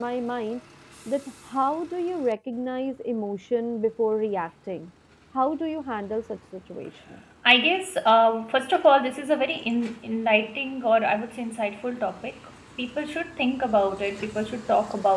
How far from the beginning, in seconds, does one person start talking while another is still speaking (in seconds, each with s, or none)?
none